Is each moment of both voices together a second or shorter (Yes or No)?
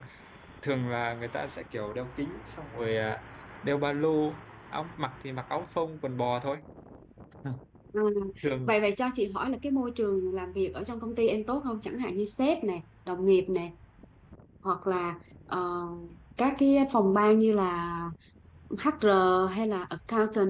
Yes